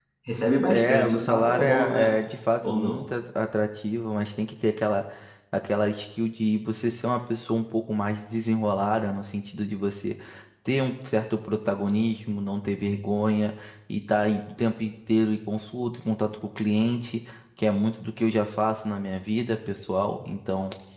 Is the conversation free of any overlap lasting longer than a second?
No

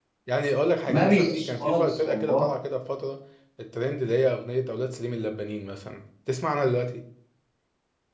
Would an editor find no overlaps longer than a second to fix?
No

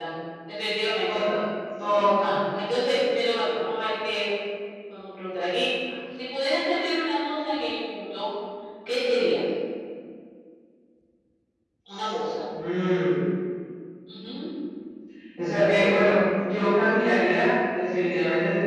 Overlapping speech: No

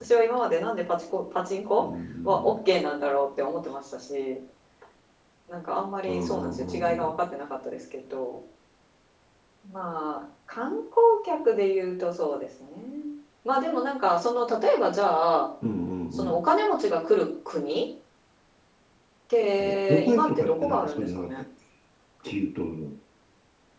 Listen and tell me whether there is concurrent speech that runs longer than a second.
Yes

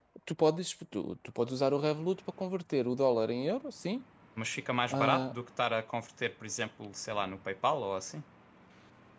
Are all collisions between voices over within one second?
Yes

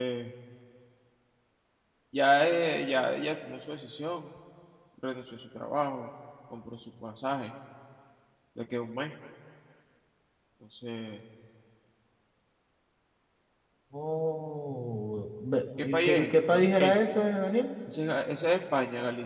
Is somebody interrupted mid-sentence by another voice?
Yes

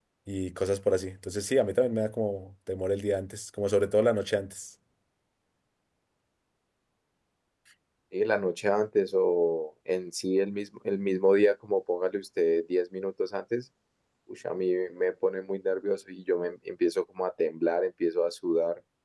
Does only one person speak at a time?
Yes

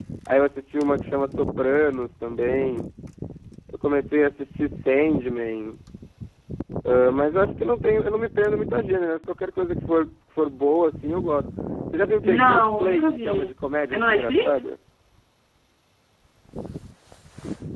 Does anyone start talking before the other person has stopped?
Yes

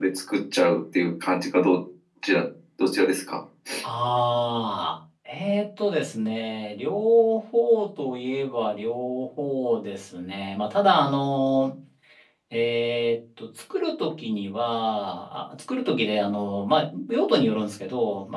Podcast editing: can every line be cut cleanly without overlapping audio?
Yes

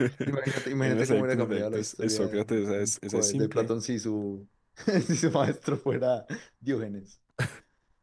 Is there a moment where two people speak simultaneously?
Yes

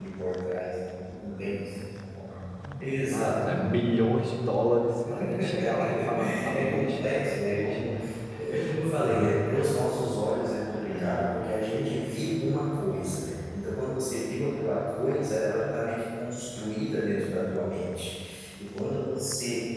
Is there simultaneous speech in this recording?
Yes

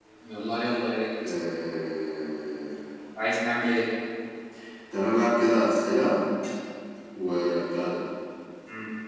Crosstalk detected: No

